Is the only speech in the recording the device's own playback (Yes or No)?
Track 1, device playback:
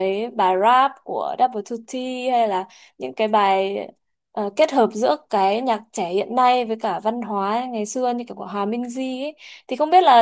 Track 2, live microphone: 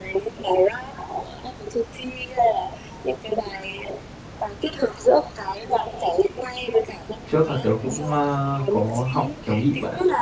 No